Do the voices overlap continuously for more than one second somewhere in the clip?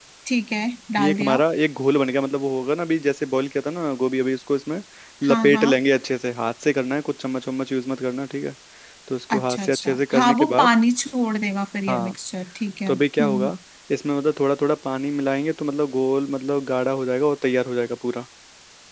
Yes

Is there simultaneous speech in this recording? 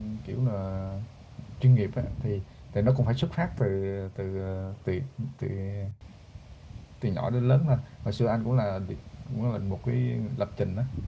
No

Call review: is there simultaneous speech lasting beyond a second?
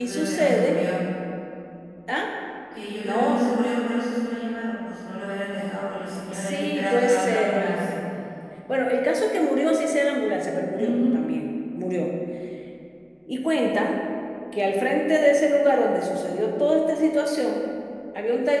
Yes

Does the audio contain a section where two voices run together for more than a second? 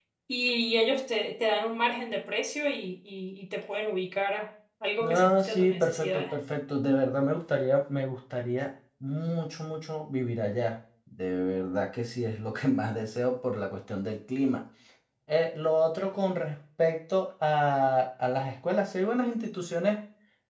Yes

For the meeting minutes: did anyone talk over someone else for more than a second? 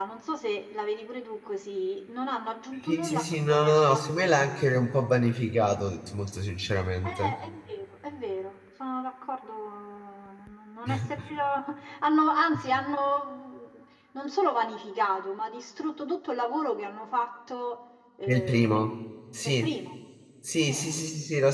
Yes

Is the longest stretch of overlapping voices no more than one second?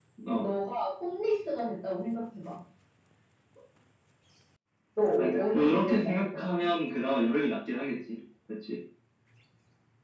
No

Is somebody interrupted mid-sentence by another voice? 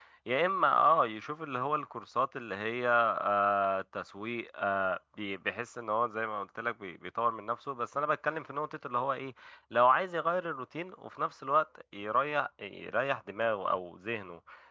No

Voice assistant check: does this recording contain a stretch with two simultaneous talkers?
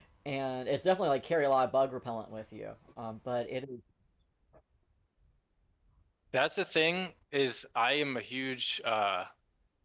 No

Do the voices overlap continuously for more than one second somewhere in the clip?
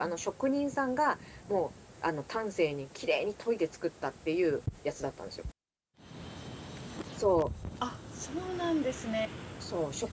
No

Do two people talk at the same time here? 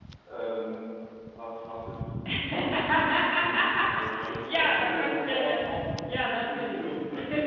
Yes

